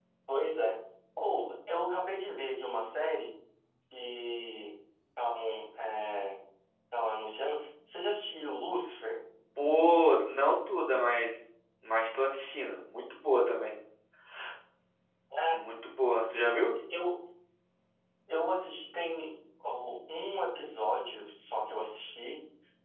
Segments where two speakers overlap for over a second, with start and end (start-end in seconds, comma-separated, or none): none